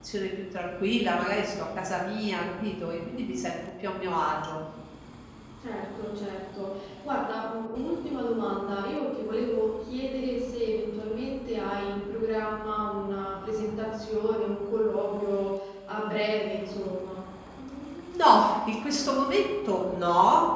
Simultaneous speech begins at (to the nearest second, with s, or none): none